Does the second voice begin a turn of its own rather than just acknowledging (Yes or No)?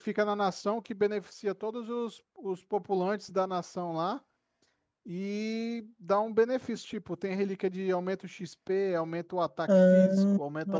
Yes